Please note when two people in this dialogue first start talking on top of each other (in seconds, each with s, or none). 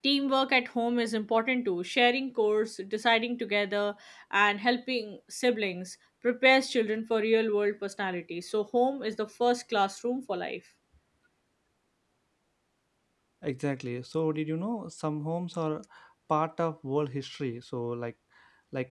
none